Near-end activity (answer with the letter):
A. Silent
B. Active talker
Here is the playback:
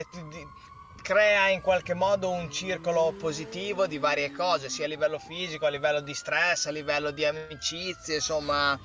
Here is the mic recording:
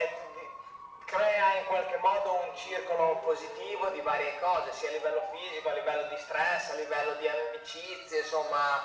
A